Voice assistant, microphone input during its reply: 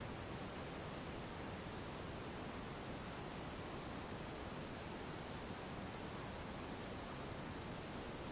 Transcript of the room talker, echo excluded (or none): none